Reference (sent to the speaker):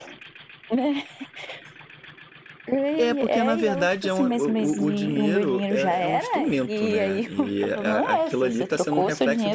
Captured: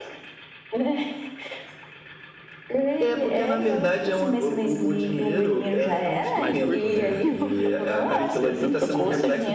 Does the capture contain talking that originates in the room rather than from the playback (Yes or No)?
Yes